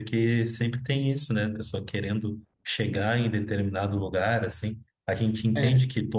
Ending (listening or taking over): listening